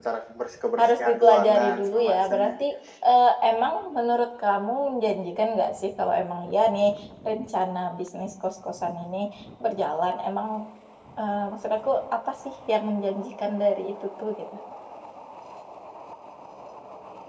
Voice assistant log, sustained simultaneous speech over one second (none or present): present